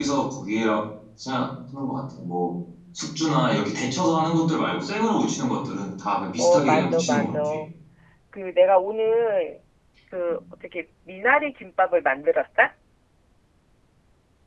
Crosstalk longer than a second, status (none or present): present